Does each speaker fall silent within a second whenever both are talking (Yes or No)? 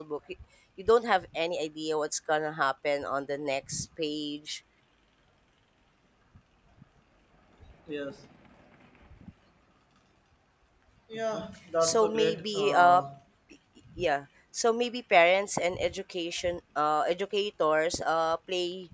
No